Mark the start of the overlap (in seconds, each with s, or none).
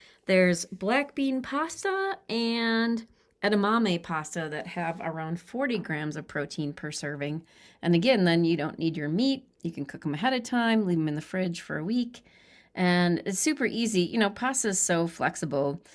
none